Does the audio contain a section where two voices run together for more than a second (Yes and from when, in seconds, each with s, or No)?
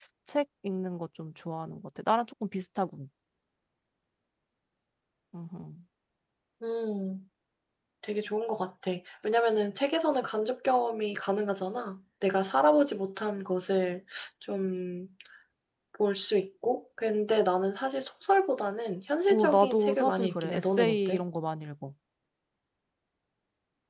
Yes, from 19.3 s